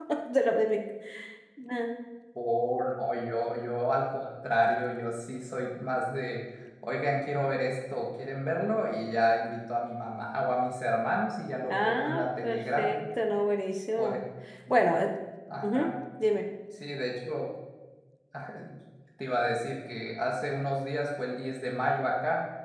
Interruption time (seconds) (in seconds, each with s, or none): 11.7 s